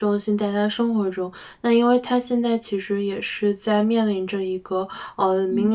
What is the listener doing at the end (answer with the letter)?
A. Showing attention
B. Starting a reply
A